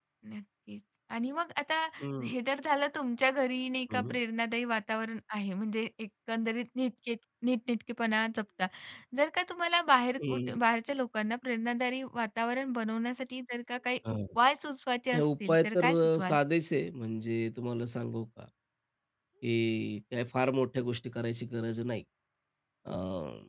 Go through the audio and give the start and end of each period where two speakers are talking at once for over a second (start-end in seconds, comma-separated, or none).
15.1-16.3